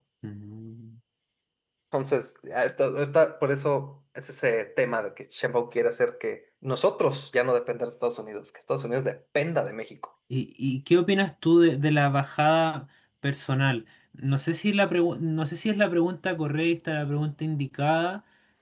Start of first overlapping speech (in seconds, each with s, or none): none